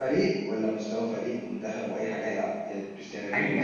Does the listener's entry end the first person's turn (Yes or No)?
Yes